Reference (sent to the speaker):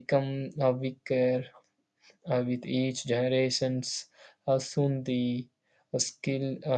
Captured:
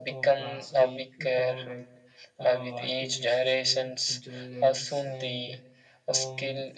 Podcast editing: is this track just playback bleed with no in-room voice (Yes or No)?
No